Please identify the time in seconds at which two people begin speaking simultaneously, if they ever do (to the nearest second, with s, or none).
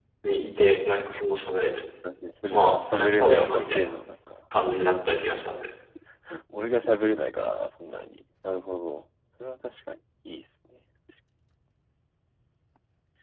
3 s